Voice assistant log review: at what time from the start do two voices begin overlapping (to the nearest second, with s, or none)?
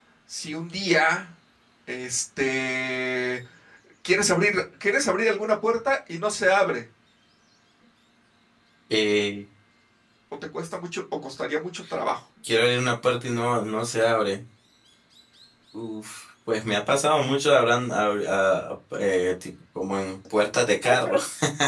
none